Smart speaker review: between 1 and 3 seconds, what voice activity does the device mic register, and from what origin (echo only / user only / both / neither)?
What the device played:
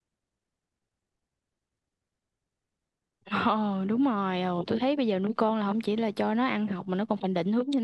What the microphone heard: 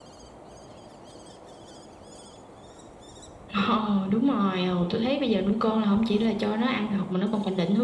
neither